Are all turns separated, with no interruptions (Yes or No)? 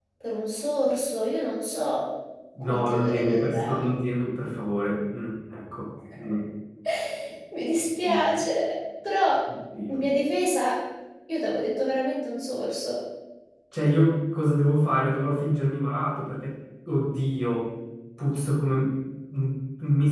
No